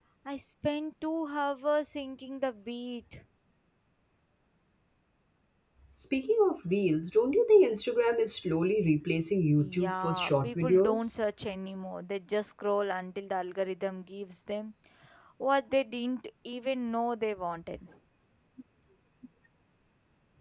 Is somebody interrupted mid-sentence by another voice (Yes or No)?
Yes